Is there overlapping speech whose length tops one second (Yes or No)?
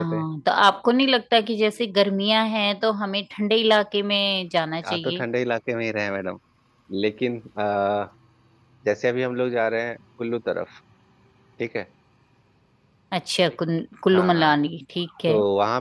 No